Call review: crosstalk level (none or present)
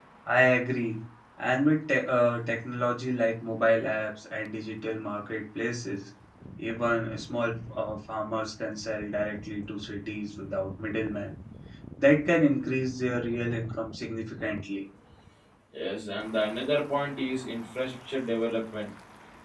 none